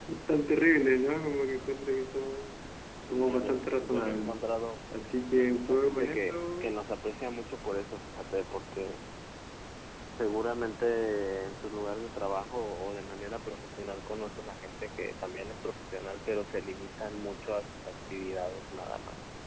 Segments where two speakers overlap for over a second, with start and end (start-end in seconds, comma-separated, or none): 3.1-4.4, 5.3-6.8